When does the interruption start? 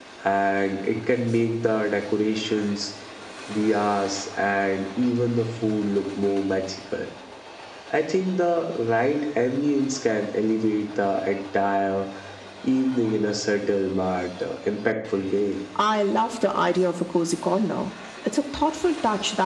none

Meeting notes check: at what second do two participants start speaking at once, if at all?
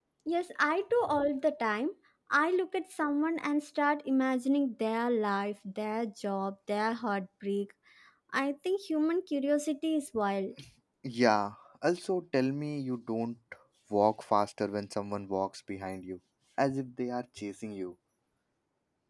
none

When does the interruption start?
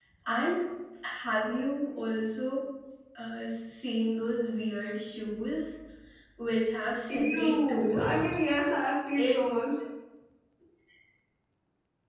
7.1 s

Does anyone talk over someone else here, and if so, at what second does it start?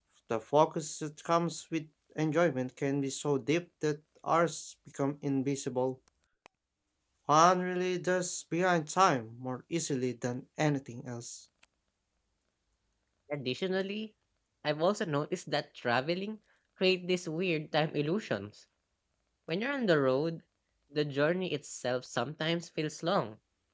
none

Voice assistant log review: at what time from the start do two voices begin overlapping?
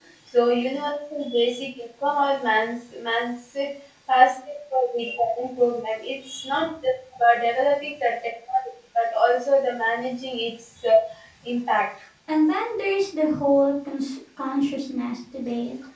none

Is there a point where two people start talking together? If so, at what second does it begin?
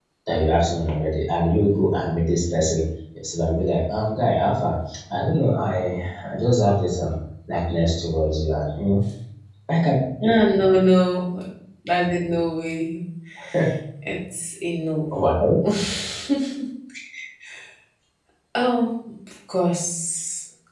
none

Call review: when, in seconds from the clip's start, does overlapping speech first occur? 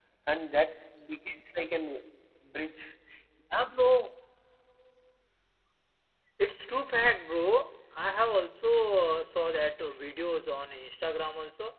none

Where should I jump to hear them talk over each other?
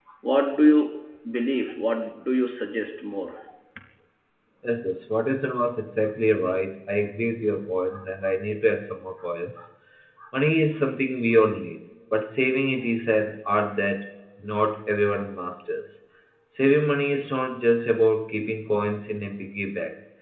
none

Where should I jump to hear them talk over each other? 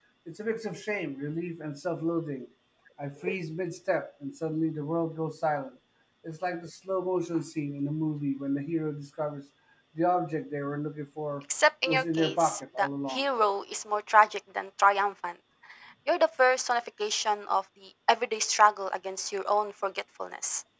11.9 s

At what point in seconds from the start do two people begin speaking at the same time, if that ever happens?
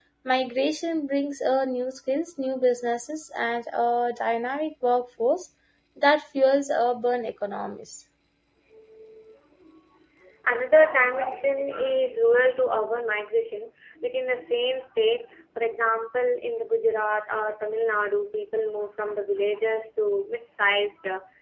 none

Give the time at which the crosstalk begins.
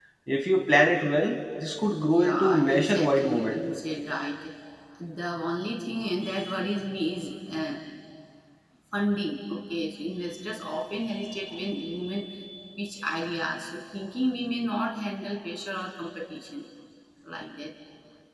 2.0 s

